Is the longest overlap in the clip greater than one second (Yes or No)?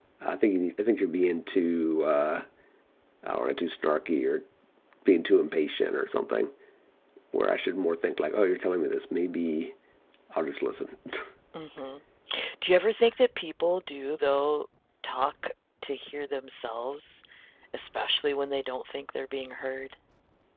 No